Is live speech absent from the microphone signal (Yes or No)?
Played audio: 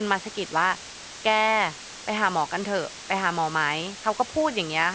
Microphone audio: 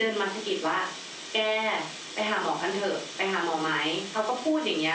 Yes